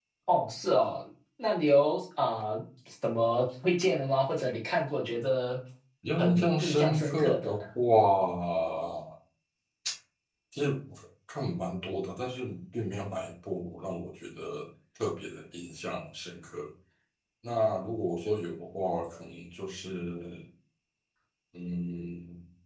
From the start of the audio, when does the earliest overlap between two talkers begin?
6.2 s

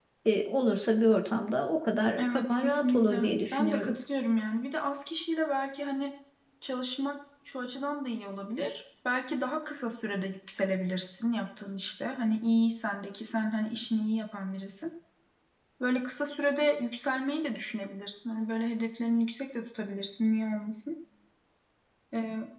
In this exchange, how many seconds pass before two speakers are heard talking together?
2.2 s

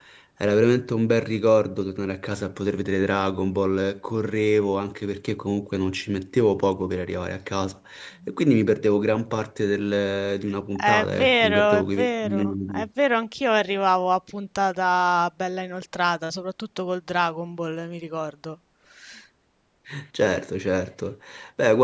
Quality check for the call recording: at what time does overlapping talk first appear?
10.8 s

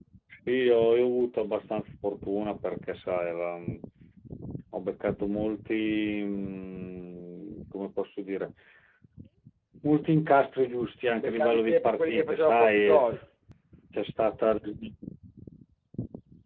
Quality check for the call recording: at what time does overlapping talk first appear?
11.2 s

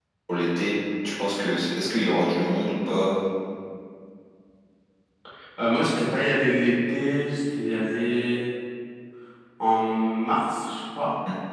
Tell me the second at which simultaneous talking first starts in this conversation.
none

